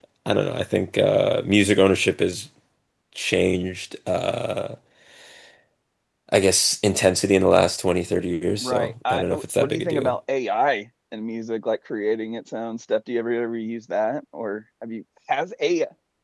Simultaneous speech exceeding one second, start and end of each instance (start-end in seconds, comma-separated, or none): 8.6-10.2